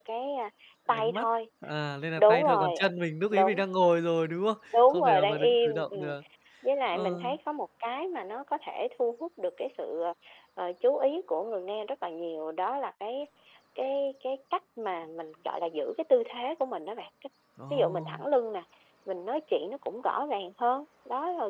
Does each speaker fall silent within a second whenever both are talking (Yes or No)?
No